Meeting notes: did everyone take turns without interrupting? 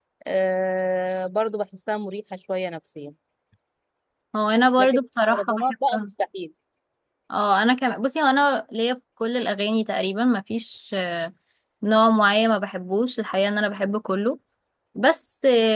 No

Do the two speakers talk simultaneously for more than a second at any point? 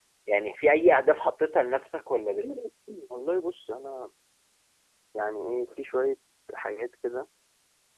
No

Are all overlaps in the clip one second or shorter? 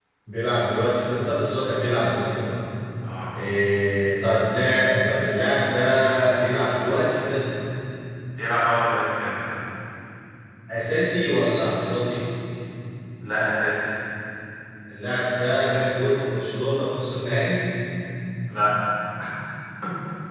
Yes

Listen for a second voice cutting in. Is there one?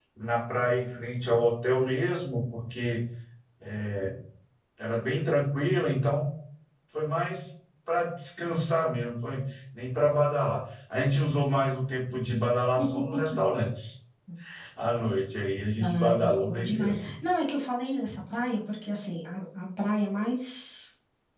Yes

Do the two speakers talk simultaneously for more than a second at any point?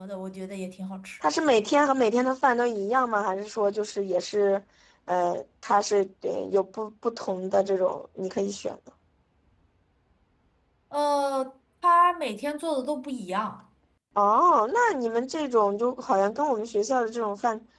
No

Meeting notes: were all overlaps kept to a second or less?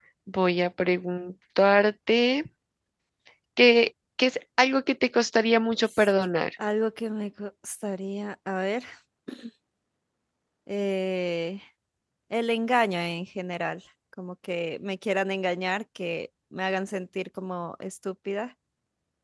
Yes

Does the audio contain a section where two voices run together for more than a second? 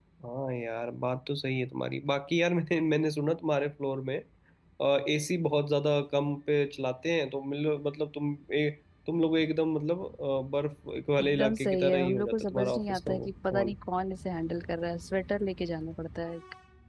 Yes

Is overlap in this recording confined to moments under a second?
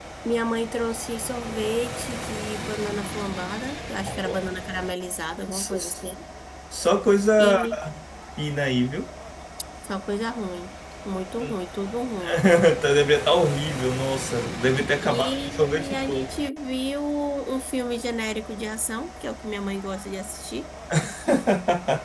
No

